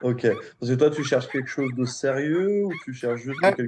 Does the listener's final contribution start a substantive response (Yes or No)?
No